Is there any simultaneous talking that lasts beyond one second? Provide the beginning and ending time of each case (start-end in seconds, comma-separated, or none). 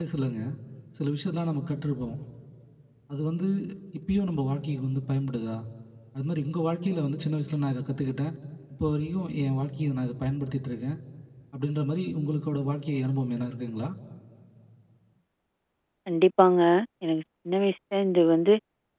none